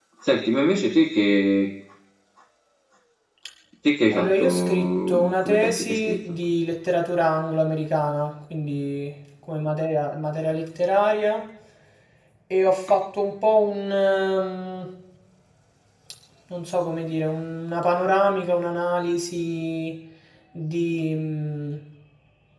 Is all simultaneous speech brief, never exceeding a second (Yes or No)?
No